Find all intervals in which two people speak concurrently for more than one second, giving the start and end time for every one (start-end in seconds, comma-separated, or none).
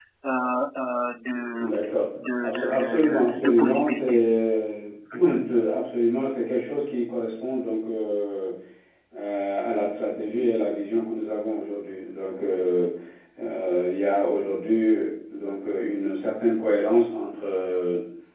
2.4-4.2